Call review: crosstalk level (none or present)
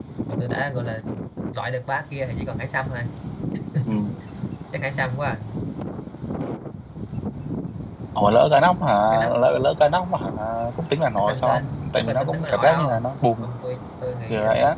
present